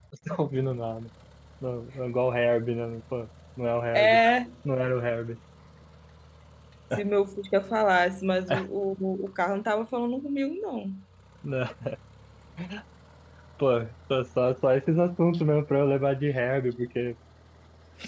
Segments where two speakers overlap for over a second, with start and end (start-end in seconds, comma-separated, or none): none